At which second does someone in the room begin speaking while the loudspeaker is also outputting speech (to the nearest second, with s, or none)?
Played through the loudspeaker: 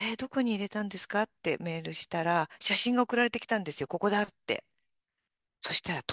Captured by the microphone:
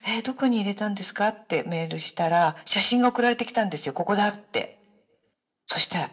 none